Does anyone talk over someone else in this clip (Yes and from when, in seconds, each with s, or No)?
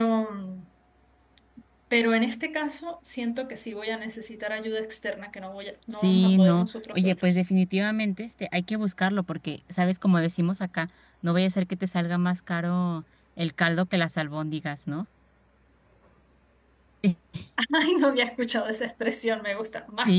Yes, from 5.9 s